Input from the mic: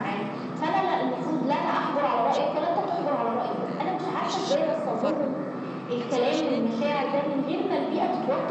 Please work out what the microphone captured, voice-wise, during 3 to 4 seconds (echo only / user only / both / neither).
both